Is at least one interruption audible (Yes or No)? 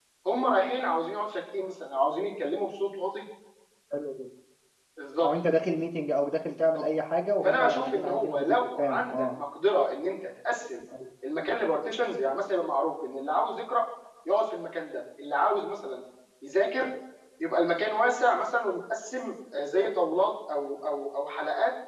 Yes